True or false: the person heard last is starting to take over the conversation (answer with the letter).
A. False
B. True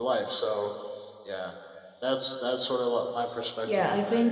B